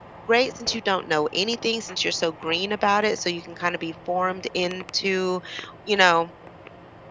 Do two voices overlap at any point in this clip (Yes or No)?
No